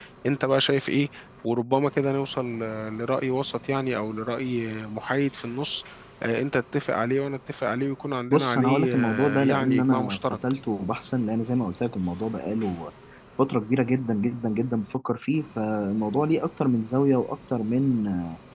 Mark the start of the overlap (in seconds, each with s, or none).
8.3 s